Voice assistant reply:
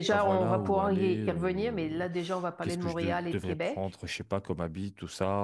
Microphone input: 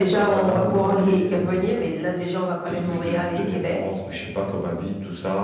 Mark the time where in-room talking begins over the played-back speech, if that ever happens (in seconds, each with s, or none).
none